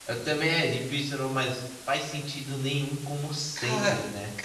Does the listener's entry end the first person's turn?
Yes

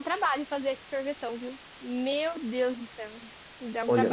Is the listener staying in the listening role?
No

